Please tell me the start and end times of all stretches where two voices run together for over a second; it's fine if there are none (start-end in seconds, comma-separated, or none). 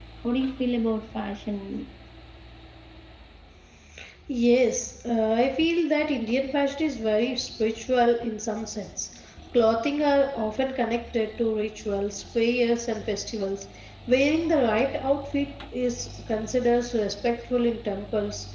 none